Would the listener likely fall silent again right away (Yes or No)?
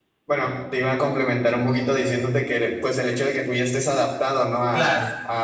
Yes